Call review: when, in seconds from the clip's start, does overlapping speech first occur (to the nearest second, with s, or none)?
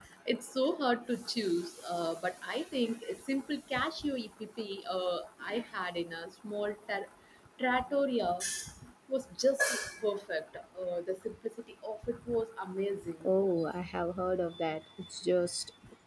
none